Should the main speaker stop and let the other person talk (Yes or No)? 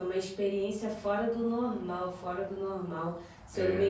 No